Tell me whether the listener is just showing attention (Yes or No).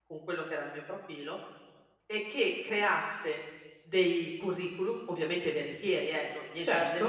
Yes